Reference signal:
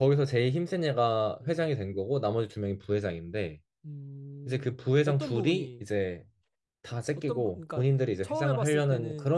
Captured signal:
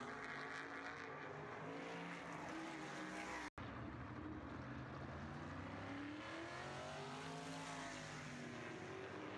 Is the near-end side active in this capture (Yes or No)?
No